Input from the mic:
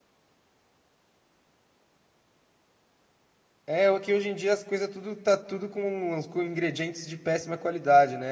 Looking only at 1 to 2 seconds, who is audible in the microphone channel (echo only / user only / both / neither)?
neither